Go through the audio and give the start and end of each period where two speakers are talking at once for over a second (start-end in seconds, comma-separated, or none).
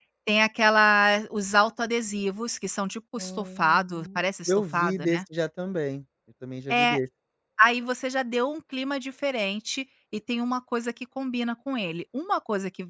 3.2-5.2